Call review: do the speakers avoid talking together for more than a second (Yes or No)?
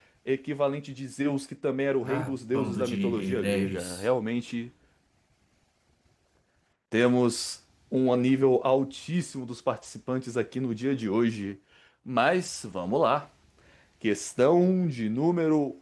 No